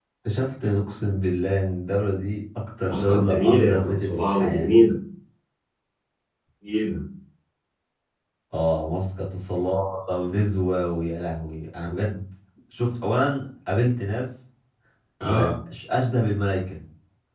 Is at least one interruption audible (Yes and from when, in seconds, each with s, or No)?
Yes, from 2.9 s